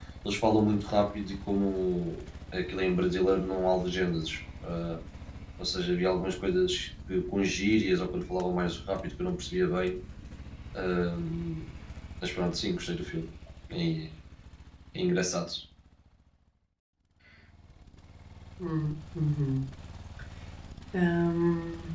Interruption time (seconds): none

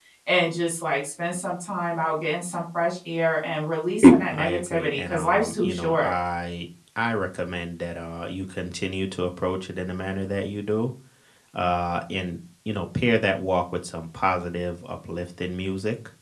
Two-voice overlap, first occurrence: 4.3 s

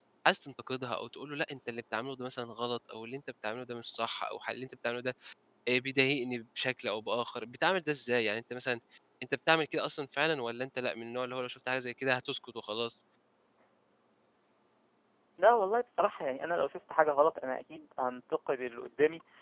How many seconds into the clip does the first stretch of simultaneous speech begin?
none

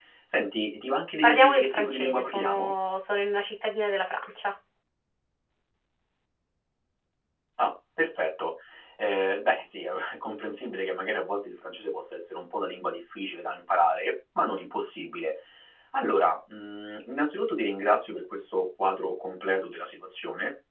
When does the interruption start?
1.2 s

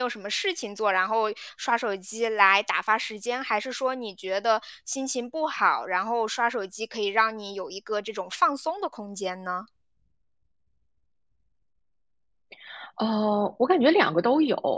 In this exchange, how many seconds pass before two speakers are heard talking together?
none

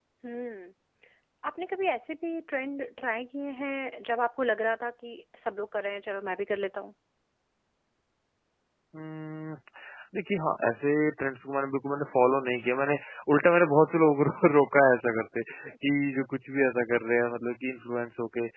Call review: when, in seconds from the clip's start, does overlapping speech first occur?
none

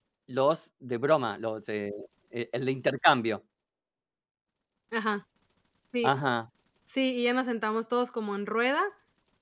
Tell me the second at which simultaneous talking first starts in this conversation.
none

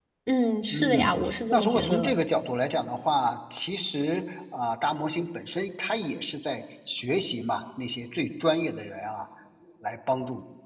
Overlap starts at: 0.7 s

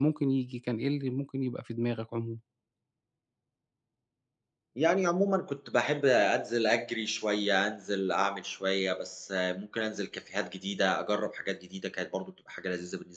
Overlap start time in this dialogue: none

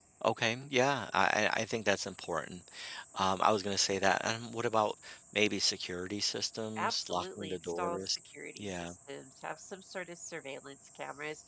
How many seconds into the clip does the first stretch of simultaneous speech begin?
6.8 s

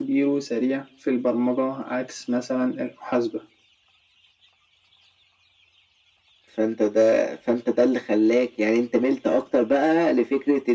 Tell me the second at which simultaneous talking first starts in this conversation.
none

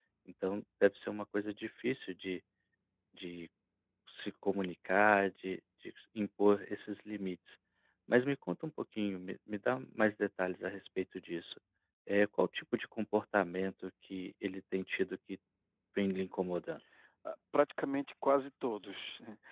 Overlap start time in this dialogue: none

